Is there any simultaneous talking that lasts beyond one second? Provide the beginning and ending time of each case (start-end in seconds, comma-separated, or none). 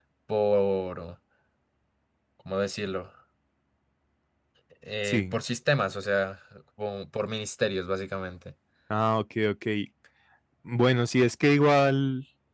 none